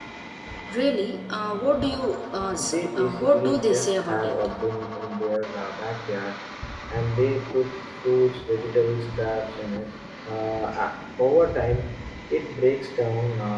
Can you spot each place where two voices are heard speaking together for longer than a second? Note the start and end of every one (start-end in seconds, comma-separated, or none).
2.6-4.3